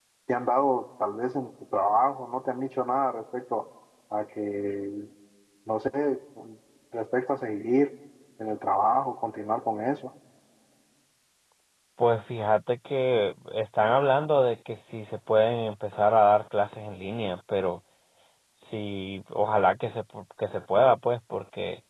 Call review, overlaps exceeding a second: none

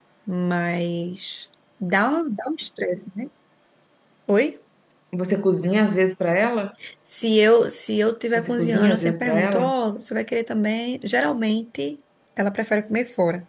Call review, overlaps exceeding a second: present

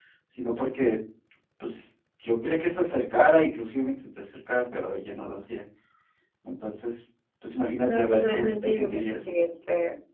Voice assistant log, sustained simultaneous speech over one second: present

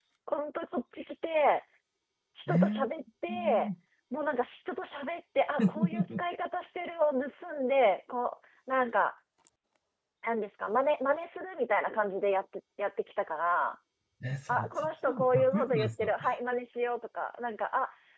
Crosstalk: present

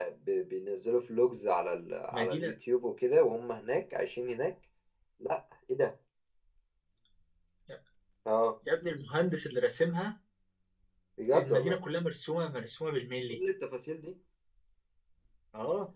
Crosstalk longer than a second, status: none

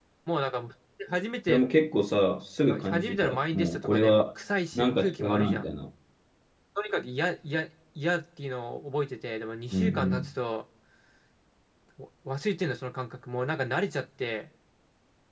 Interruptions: present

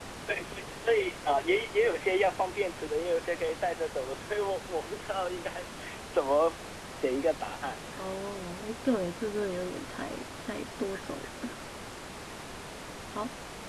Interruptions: none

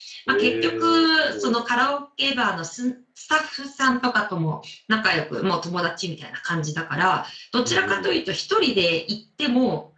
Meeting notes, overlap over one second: present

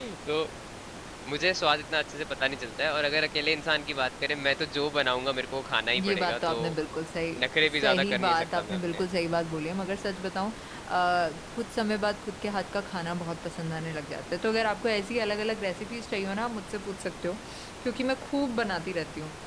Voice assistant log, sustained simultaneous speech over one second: present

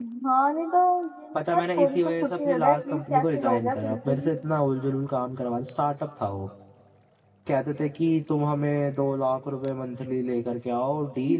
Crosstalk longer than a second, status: present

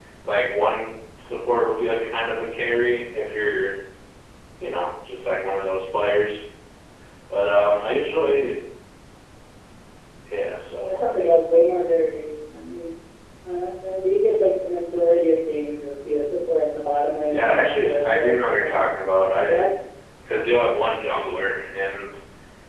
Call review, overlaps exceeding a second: present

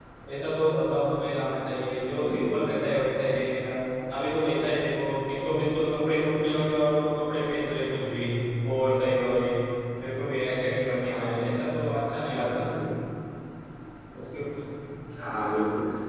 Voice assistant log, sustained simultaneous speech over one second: none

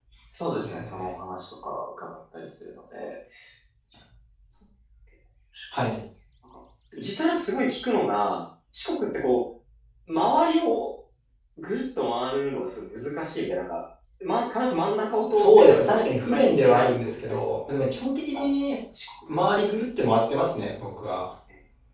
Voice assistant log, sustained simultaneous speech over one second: present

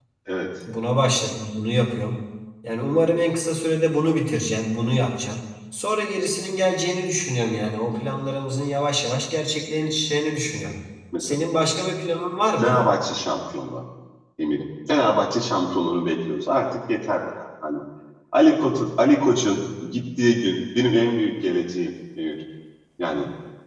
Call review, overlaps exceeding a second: none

